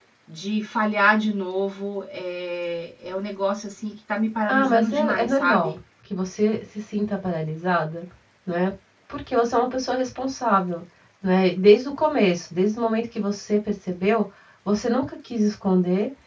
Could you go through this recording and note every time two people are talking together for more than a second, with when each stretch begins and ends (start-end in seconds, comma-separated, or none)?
4.5-5.8